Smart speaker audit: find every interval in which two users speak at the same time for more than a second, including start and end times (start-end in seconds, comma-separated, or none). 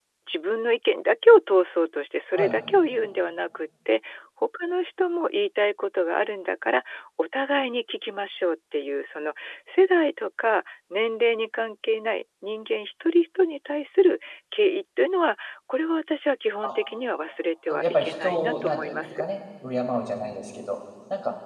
17.7-19.2